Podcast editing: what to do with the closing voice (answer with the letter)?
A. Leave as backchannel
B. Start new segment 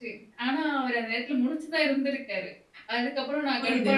A